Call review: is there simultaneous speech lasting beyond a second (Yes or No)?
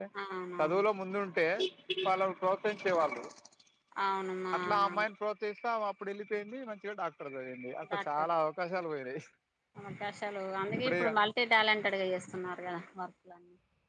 No